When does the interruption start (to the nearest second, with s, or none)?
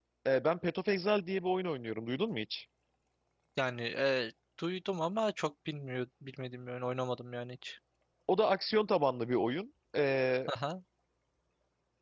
none